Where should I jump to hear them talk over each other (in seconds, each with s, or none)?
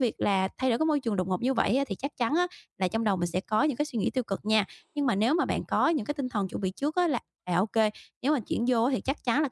none